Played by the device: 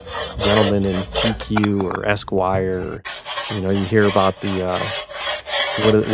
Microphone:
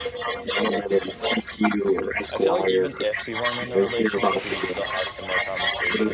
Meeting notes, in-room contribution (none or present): present